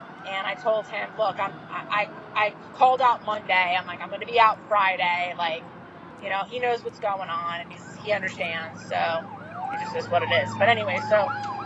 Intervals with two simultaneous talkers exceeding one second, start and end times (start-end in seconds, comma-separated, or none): none